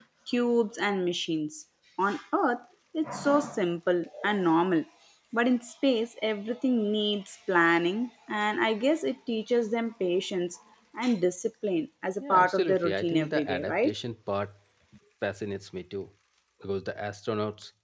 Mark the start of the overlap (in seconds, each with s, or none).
12.2 s